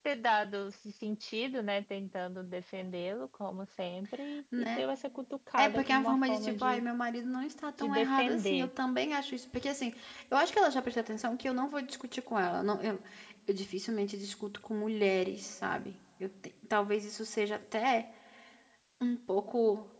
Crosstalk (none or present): present